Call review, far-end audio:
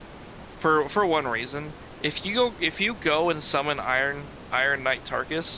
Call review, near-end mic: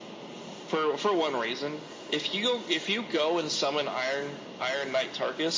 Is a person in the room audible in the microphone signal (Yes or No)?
No